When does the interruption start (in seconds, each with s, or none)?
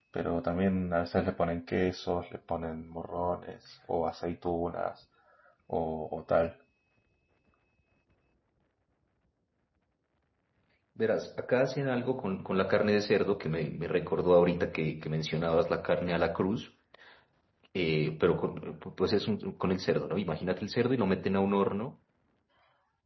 none